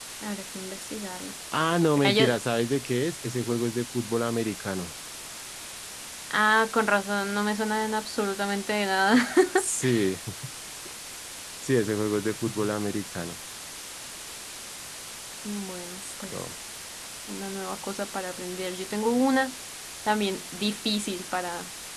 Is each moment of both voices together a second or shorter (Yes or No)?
Yes